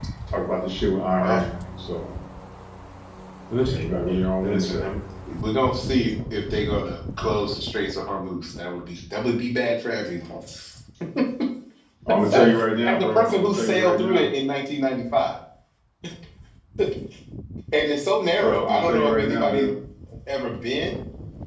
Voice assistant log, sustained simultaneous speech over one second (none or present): present